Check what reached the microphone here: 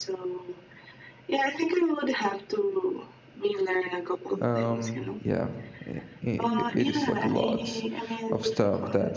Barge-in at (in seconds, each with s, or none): 4.4 s